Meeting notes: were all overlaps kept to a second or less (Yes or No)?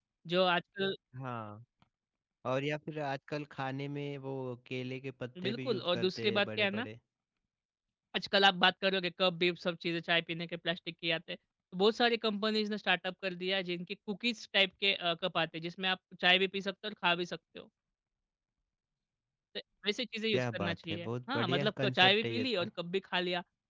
No